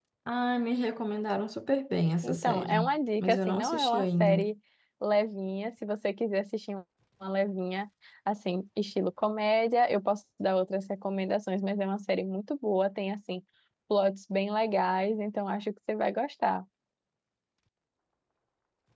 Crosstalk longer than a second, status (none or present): present